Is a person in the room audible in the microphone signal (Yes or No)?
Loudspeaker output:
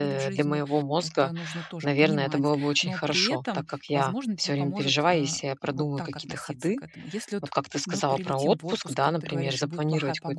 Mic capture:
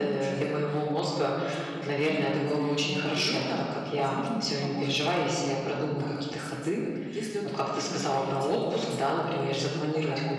No